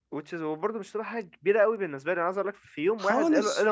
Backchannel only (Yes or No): Yes